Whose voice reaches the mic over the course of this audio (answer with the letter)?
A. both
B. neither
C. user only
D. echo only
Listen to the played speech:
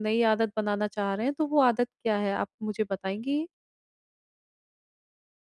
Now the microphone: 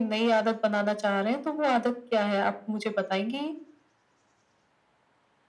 D